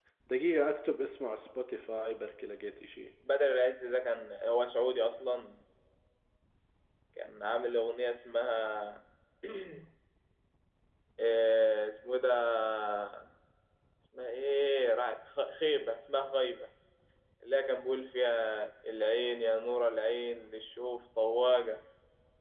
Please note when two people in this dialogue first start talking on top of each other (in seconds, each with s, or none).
none